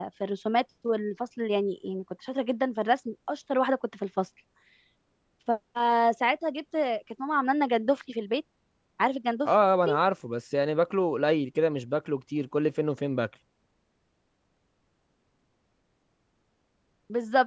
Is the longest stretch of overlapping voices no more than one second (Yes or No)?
Yes